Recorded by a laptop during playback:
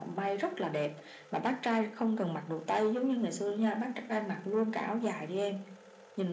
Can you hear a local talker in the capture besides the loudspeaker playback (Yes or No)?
No